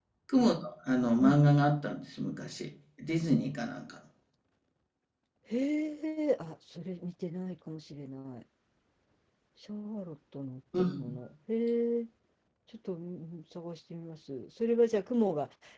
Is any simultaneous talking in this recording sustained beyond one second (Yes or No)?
No